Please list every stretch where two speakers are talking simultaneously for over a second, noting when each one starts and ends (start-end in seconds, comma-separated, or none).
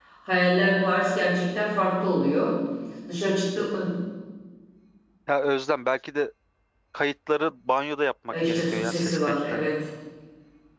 8.3-9.7